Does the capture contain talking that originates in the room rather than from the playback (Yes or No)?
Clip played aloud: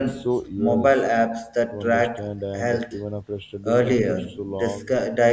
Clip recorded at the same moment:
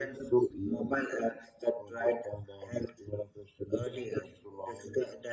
No